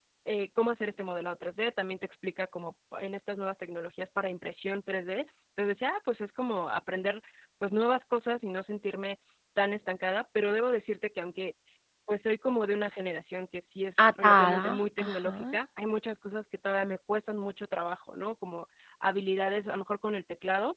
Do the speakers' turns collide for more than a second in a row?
Yes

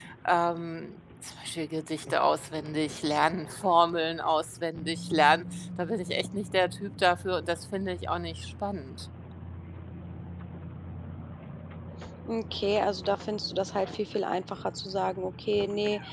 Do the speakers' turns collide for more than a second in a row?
No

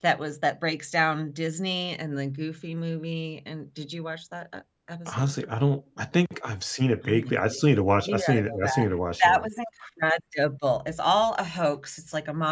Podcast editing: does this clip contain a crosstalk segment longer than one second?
Yes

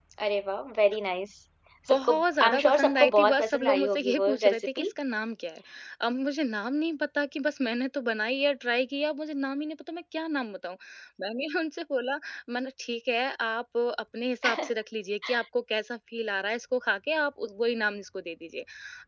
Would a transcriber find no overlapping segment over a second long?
No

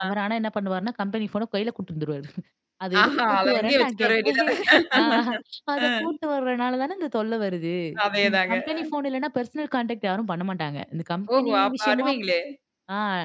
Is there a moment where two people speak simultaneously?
Yes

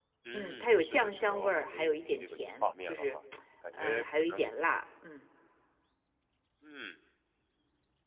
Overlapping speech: Yes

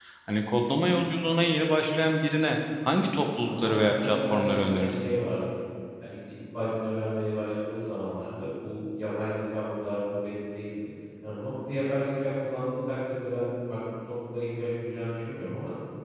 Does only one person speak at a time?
No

